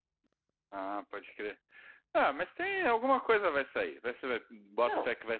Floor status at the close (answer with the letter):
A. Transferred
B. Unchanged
B